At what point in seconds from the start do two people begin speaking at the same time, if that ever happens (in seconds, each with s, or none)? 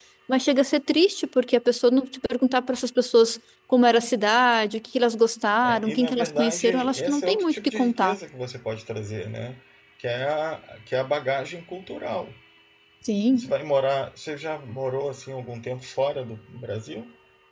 5.6 s